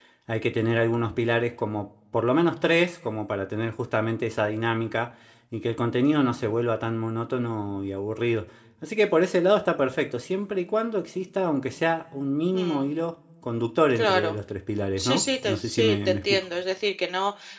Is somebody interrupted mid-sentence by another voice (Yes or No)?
Yes